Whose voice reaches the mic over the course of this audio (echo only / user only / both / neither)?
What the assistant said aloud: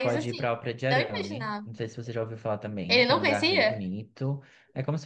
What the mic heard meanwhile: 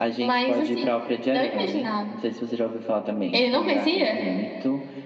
echo only